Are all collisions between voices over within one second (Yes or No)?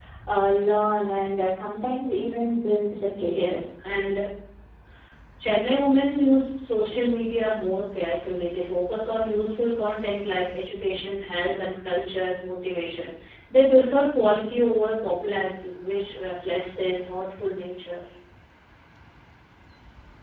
Yes